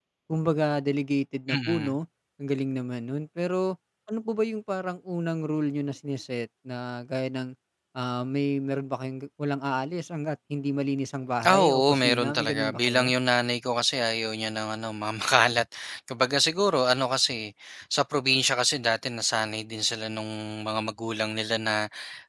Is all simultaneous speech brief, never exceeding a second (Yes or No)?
No